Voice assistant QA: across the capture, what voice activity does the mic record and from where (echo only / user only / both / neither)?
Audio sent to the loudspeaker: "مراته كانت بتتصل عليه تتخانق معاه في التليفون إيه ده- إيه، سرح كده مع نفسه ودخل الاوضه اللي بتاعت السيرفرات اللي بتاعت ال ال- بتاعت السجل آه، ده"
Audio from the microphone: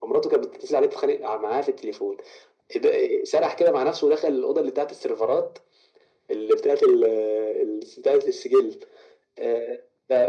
echo only